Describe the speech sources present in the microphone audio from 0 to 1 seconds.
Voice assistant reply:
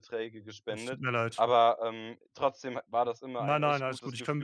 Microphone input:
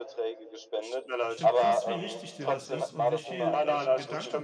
echo only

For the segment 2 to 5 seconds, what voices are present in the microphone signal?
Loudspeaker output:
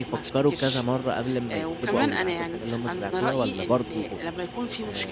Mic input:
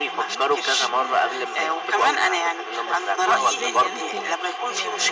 both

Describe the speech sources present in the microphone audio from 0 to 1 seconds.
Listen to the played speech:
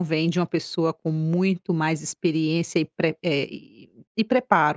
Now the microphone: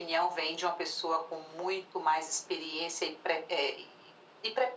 echo only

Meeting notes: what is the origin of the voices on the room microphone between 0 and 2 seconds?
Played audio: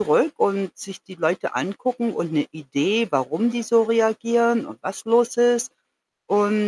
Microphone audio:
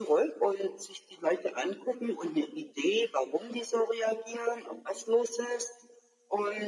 echo only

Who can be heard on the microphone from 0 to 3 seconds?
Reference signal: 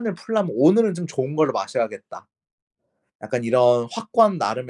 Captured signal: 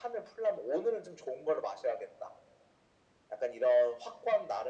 echo only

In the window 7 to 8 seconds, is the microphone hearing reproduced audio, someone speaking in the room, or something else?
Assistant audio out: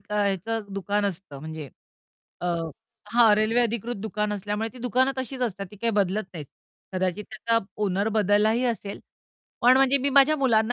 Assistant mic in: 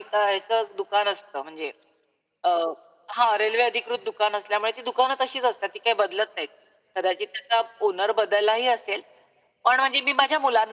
echo only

